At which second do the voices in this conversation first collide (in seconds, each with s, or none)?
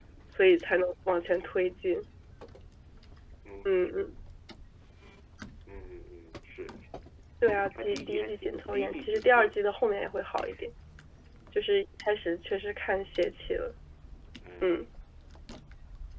7.8 s